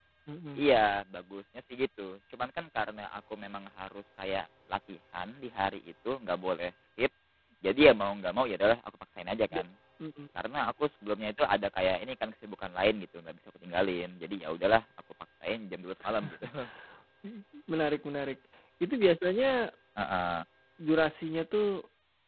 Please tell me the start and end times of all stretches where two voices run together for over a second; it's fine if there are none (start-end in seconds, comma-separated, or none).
none